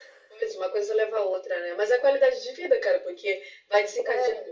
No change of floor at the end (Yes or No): Yes